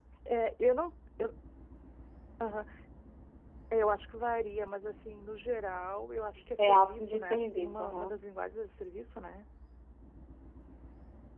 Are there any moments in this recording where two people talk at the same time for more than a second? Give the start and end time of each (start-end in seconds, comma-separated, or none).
6.6-8.2